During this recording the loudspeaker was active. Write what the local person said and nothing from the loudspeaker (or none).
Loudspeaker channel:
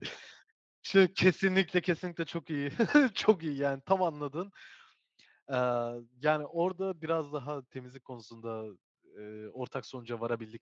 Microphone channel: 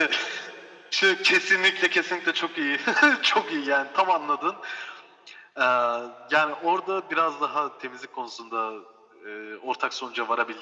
none